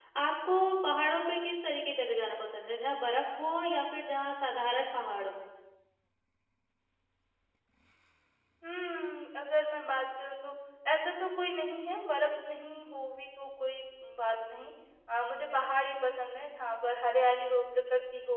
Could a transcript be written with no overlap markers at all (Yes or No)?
Yes